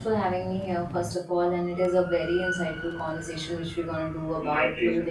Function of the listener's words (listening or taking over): listening